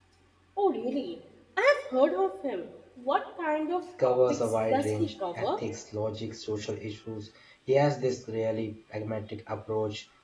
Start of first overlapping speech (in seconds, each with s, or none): 4.0 s